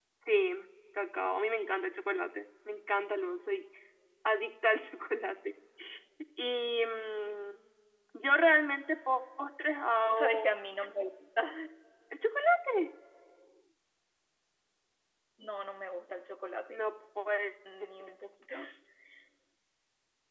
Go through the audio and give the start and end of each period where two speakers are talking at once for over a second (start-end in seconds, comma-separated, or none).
none